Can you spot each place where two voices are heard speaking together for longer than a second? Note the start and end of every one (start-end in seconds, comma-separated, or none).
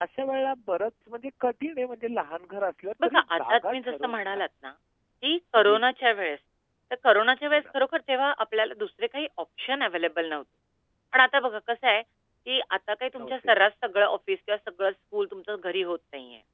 3.0-4.4